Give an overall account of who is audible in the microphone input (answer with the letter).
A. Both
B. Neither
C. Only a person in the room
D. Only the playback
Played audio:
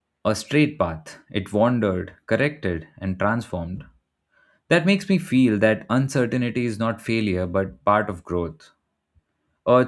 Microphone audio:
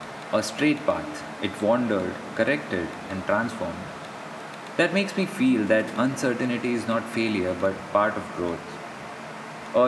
D